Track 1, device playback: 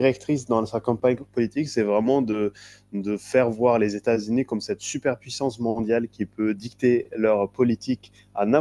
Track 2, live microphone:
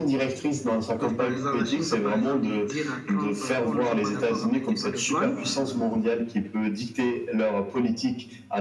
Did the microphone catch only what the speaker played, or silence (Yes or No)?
No